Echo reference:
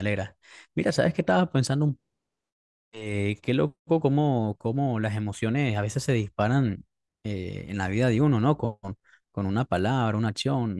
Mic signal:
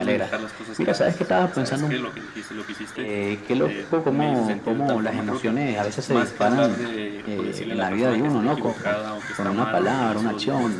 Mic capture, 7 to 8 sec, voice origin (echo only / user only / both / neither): both